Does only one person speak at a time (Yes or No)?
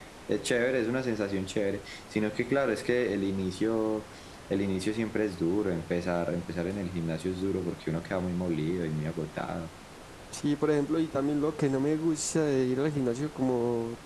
Yes